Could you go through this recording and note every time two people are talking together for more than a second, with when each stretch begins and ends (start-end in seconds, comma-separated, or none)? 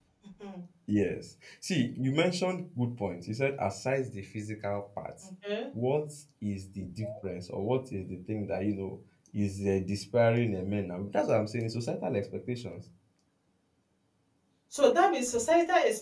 none